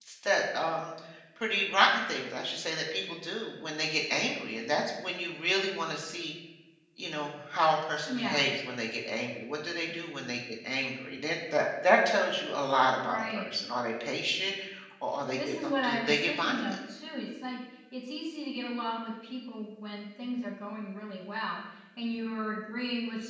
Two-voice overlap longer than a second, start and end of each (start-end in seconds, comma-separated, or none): 15.4-16.8